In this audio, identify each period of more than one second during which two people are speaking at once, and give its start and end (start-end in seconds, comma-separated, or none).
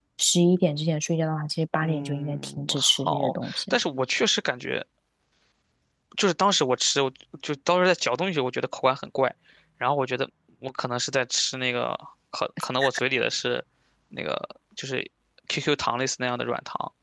1.8-3.8